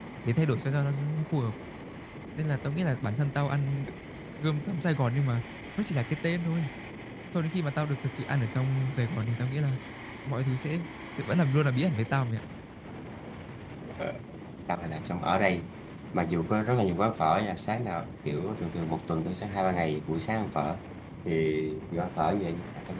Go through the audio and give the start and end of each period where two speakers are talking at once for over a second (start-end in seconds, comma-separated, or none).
none